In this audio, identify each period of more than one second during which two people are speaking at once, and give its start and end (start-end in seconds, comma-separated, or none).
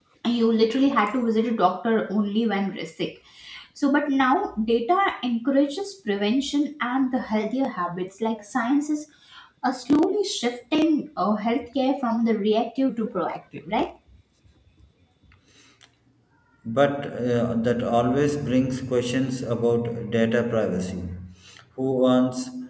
none